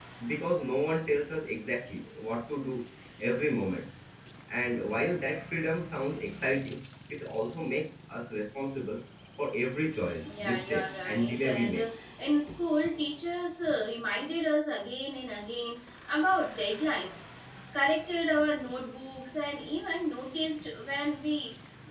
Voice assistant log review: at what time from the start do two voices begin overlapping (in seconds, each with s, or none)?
10.2 s